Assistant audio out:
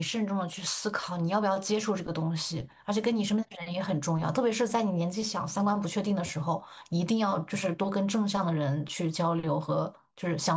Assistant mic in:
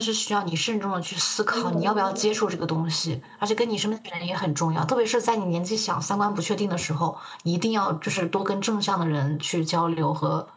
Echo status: present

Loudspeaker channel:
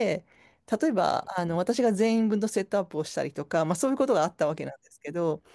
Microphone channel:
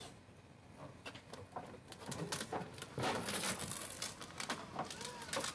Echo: none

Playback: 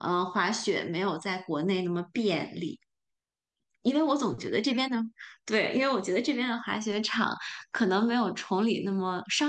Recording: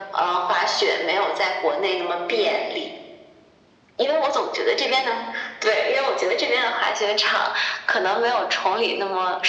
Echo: present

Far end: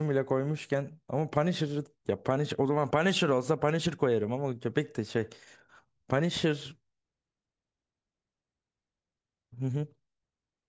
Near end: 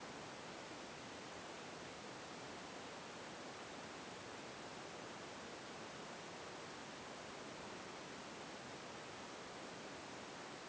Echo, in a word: none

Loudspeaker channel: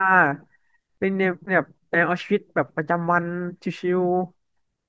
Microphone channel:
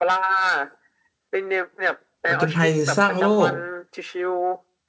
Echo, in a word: present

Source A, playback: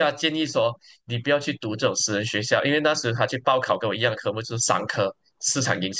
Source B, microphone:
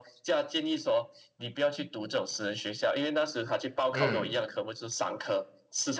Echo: present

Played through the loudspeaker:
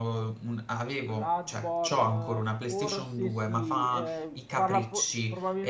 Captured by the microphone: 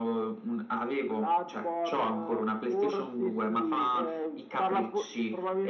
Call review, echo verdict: present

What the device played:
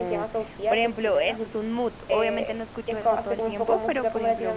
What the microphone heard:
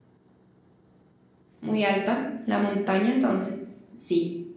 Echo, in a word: none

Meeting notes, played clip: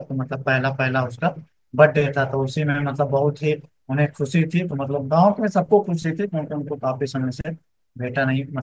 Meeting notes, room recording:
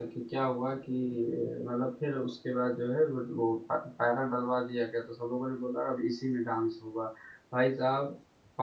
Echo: none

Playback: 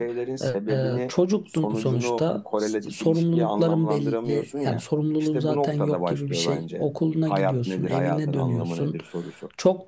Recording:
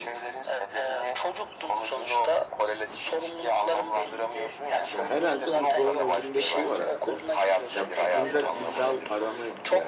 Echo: present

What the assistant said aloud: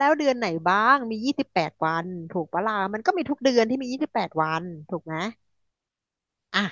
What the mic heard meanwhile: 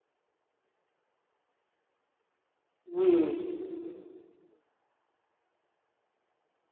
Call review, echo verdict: none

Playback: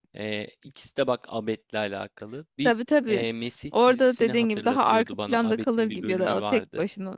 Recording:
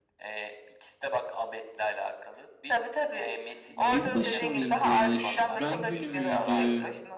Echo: present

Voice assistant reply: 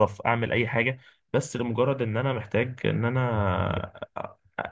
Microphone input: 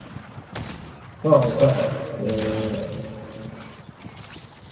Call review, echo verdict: none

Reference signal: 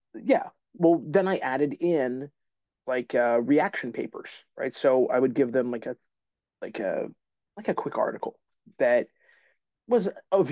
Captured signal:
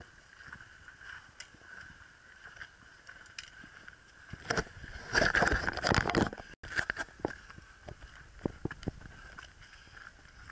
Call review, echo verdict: none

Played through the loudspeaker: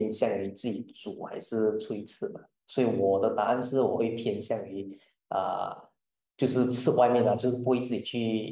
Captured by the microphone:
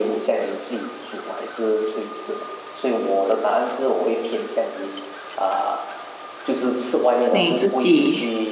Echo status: present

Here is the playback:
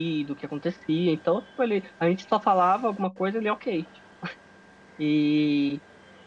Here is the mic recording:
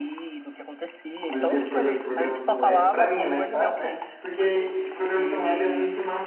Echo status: present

